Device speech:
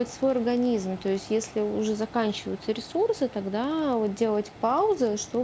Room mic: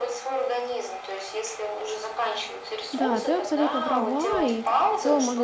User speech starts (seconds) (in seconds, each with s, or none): 2.9 s